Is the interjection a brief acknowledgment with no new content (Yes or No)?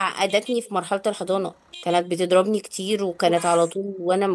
Yes